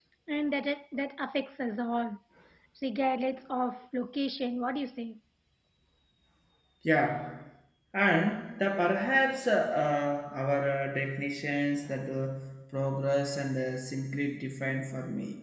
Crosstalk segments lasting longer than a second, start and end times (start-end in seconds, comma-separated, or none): none